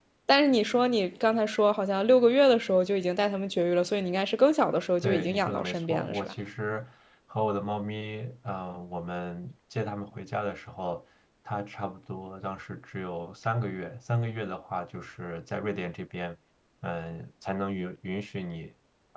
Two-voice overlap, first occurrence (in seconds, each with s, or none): 5.0 s